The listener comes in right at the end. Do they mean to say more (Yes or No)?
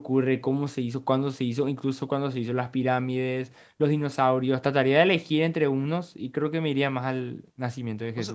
Yes